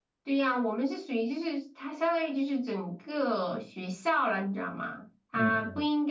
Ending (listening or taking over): listening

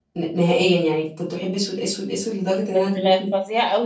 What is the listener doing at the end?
taking over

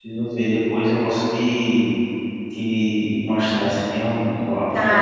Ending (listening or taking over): taking over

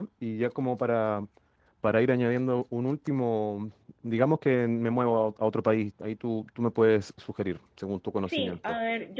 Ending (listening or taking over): taking over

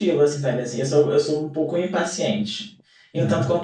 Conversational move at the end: listening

